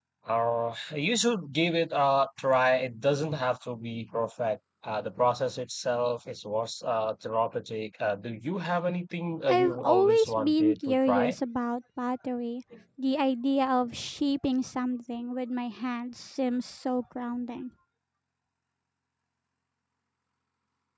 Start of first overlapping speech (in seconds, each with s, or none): 9.5 s